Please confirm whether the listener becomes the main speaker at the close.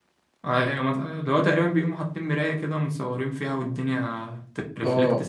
Yes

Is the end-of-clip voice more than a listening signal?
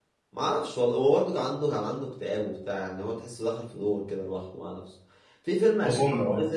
No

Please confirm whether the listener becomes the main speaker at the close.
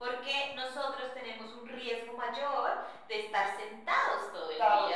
Yes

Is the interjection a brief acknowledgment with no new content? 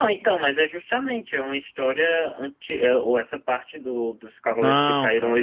No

